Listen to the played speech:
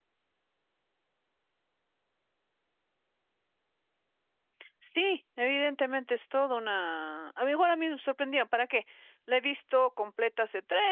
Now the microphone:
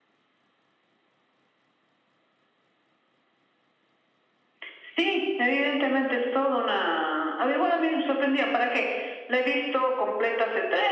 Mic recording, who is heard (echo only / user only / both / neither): echo only